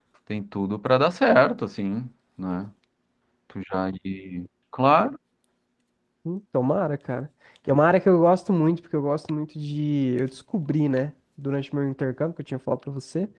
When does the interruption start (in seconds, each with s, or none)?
none